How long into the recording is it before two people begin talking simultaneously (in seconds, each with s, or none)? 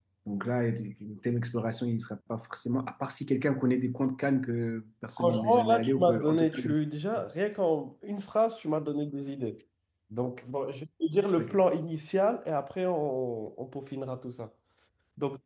5.2 s